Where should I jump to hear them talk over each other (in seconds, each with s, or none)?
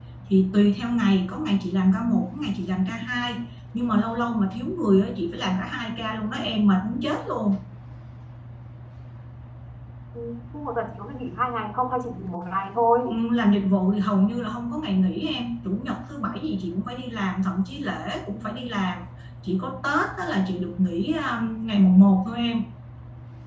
none